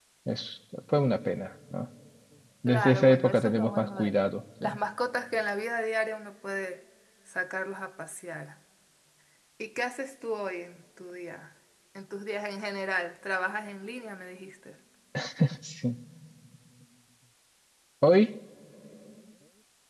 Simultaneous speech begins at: 2.7 s

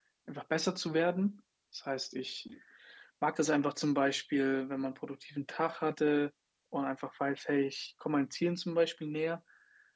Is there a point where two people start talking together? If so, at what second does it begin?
none

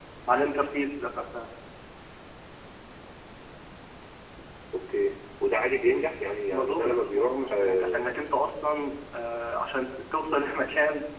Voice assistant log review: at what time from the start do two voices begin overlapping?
6.5 s

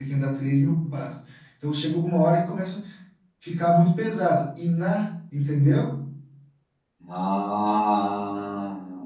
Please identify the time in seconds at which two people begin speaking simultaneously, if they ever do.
none

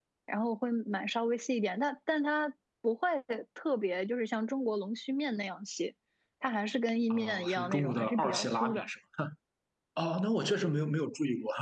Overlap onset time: 7.1 s

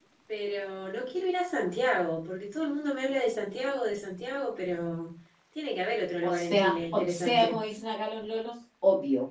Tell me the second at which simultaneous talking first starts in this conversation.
6.2 s

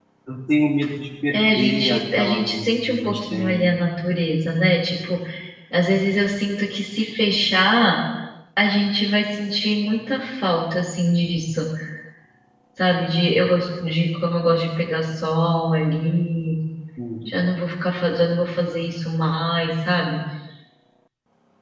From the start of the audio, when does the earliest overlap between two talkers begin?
1.3 s

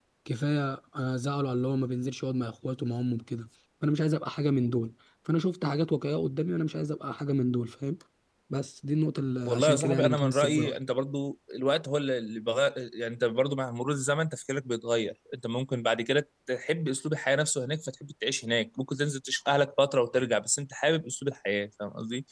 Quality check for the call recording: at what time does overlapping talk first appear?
9.4 s

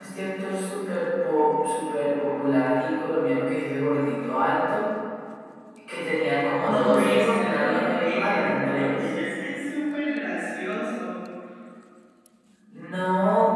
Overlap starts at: 6.6 s

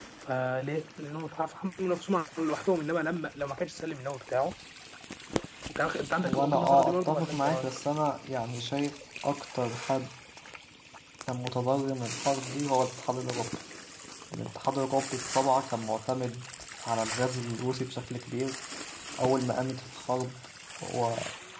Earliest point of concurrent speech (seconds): 6.2 s

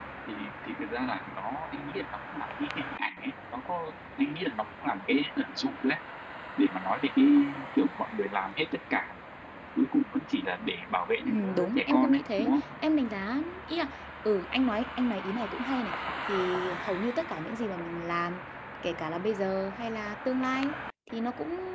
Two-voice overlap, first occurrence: 11.3 s

